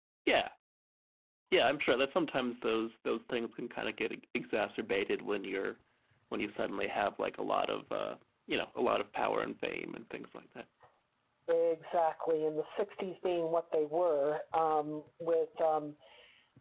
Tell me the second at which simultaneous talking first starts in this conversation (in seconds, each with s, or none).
none